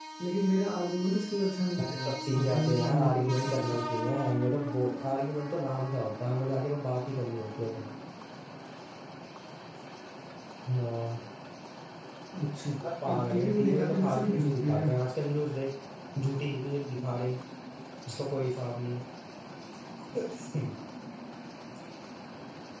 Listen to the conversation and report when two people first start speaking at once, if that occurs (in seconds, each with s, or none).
2.0 s